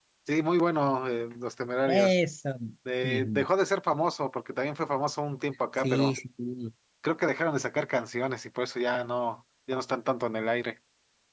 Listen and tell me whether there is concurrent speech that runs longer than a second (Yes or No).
No